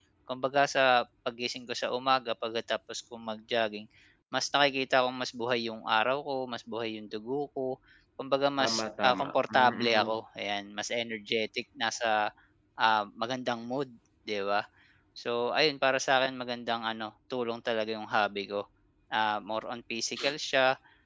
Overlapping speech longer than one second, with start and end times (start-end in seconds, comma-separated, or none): 8.6-10.2